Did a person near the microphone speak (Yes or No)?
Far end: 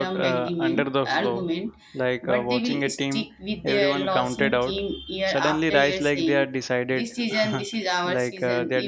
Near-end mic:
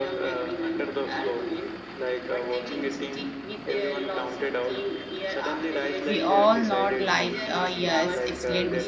Yes